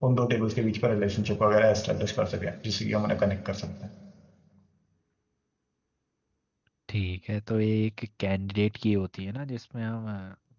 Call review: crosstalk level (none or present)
none